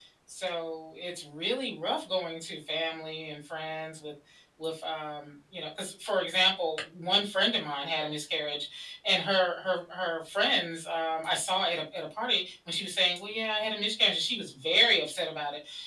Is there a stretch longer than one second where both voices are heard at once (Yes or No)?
No